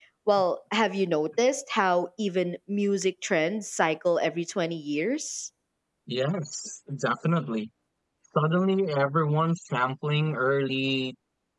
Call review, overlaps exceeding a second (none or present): none